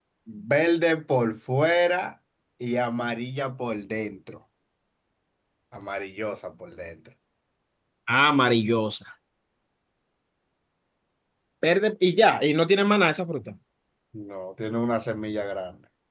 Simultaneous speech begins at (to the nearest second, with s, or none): none